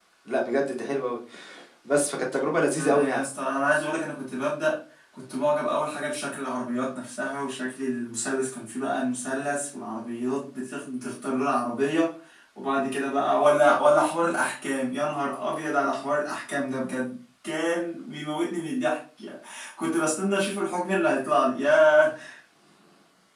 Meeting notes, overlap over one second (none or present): none